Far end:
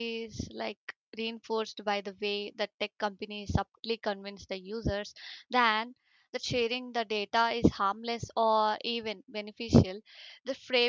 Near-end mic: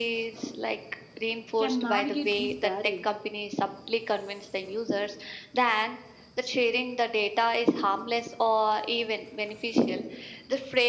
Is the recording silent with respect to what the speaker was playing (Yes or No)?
No